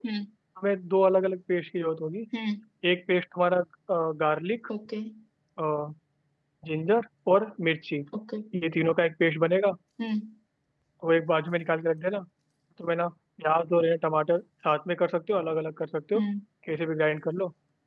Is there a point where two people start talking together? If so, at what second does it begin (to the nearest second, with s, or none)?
none